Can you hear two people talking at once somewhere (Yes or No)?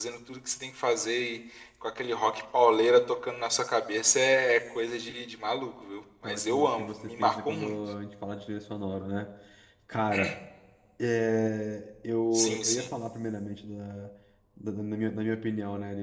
Yes